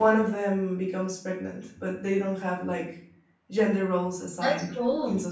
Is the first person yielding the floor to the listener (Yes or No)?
No